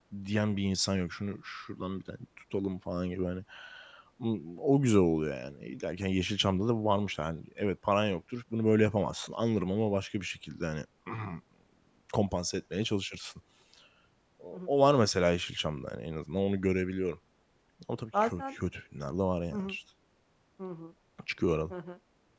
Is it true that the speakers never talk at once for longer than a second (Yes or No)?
Yes